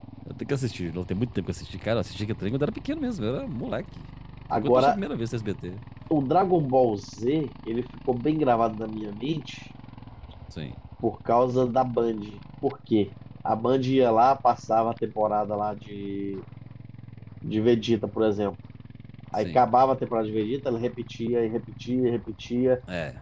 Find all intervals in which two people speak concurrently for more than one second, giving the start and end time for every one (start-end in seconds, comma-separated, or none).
none